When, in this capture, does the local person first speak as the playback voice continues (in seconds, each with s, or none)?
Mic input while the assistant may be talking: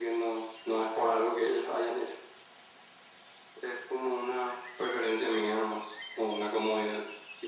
none